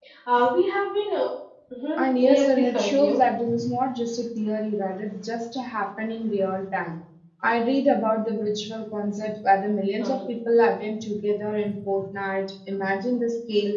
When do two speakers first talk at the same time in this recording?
2.0 s

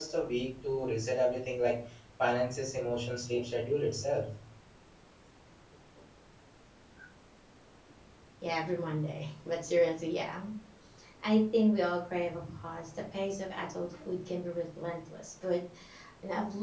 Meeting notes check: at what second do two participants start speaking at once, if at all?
none

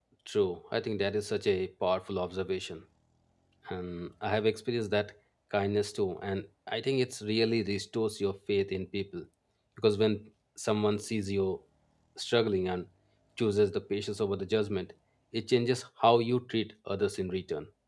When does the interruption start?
none

